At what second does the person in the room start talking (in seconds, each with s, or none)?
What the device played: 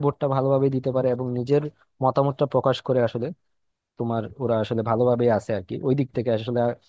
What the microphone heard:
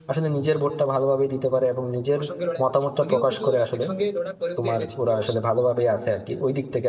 2.2 s